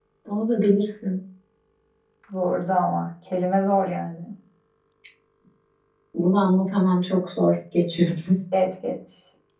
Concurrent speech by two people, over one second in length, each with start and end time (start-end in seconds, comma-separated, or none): none